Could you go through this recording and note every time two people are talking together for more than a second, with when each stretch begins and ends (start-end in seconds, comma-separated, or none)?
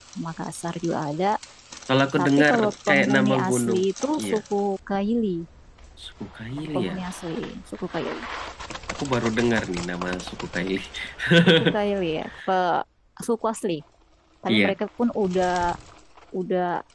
2.2-3.8